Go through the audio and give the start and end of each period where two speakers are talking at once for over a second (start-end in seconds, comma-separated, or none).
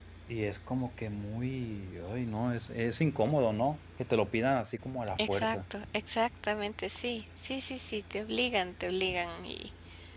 none